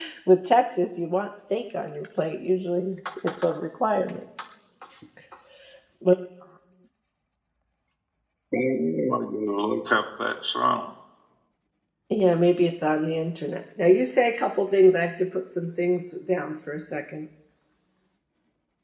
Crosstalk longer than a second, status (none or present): none